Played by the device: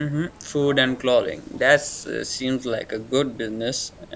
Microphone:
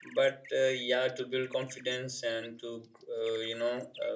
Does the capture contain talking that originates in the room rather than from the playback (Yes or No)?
Yes